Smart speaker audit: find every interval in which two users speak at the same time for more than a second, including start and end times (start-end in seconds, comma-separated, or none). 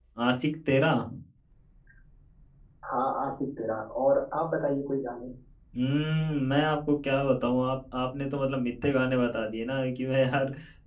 none